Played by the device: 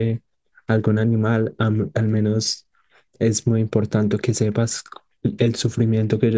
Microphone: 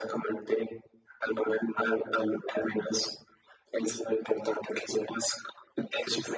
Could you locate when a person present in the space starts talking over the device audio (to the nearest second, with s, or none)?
none